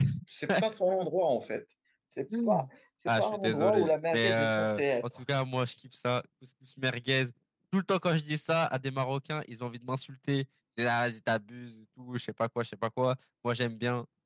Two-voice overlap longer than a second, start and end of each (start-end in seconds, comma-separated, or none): 3.2-5.0